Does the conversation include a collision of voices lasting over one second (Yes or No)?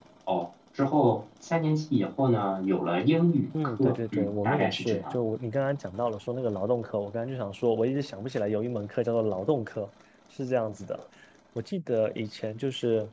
Yes